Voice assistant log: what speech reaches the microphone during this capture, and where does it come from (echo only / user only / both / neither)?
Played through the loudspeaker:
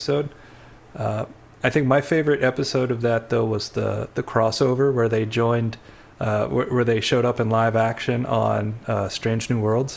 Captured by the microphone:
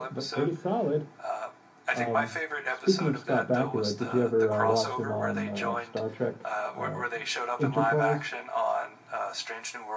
both